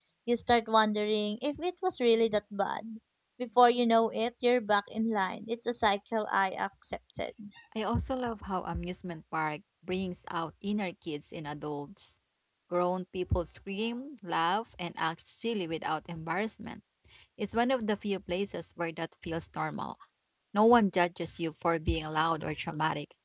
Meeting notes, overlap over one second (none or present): none